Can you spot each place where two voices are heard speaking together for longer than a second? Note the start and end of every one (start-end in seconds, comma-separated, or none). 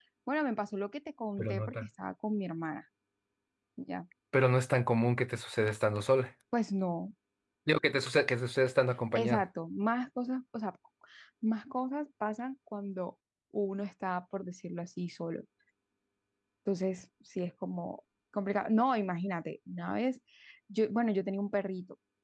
none